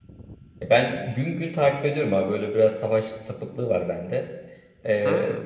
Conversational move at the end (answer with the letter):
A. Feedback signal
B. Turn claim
A